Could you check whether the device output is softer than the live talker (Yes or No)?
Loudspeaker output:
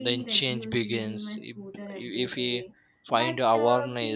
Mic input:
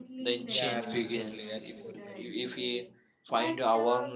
No